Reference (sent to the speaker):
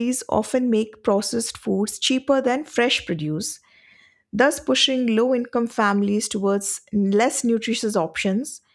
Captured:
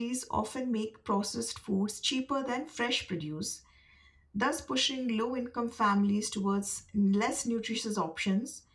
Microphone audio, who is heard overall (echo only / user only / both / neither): echo only